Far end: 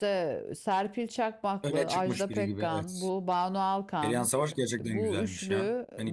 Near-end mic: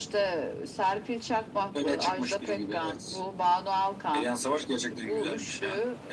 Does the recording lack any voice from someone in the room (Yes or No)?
Yes